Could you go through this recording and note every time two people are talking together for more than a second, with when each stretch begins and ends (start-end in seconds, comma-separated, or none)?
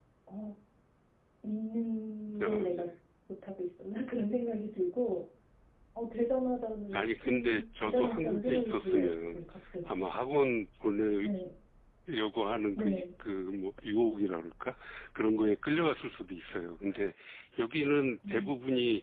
6.9-9.4